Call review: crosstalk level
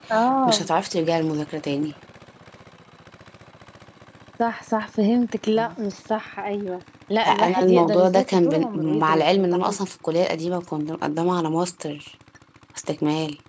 present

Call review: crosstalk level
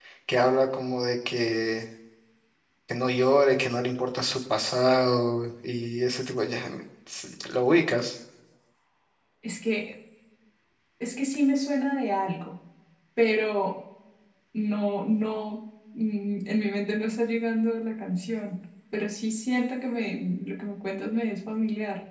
none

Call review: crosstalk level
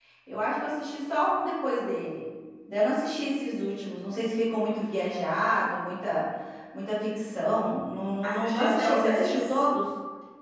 present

